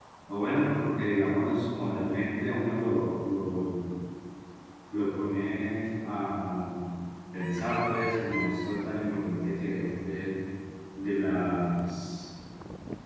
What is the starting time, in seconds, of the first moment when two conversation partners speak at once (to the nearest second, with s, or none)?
none